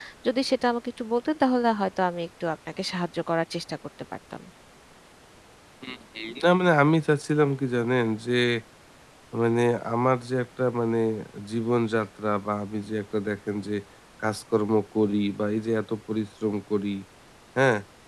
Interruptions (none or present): none